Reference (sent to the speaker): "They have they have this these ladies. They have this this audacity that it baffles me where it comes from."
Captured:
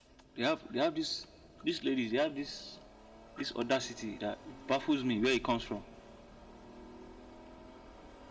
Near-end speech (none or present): none